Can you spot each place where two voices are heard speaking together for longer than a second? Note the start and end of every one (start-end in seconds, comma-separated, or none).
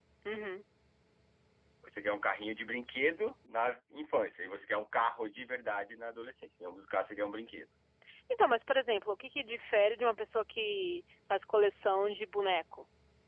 none